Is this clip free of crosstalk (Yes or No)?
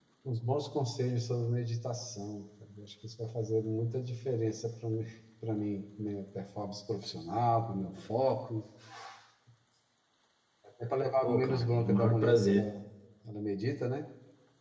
No